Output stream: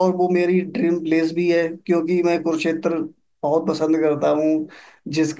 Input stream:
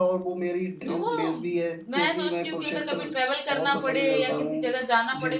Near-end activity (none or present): present